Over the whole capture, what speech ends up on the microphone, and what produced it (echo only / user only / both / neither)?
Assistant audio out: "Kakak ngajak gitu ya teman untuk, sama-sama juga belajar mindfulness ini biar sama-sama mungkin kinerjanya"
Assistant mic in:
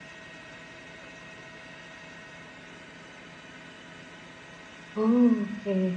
user only